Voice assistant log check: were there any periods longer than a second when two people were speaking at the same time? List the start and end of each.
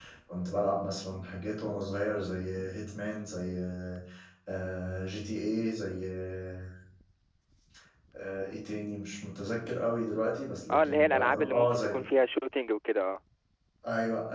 10.7-12.0

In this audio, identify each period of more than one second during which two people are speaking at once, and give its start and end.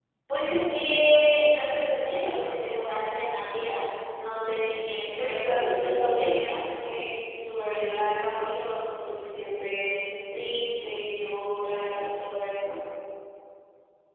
5.2-6.6

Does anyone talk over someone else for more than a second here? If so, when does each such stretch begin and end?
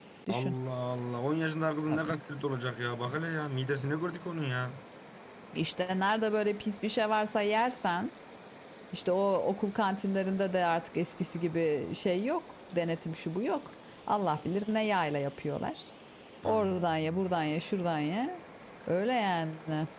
none

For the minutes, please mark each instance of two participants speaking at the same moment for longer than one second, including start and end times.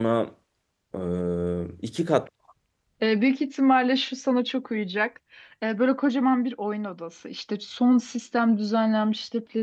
none

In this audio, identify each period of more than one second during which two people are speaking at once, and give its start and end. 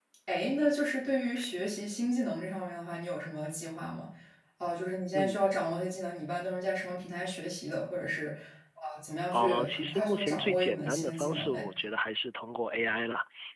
9.3-11.6

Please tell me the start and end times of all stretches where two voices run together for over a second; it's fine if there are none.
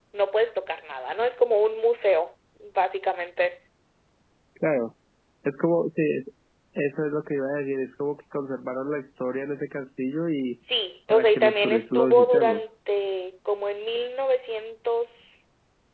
11.1-12.6

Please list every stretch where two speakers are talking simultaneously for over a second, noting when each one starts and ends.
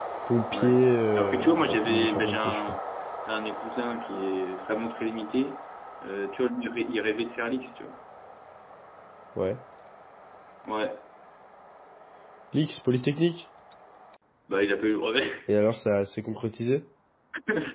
1.1-2.8

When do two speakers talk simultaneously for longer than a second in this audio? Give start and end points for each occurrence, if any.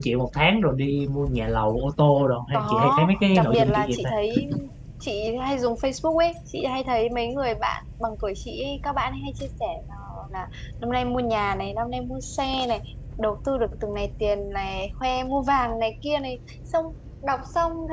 2.5-4.1

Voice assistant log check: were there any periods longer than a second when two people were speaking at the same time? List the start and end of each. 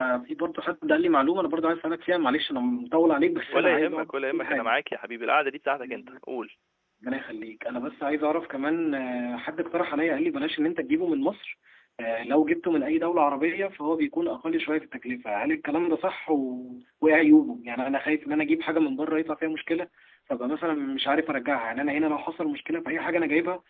3.5-4.7

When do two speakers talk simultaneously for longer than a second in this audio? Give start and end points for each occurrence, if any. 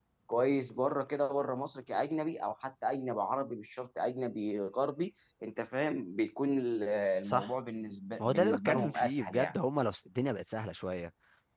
8.2-9.6

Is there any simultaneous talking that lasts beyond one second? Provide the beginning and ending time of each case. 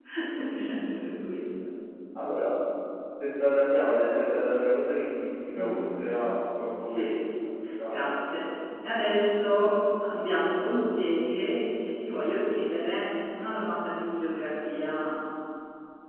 none

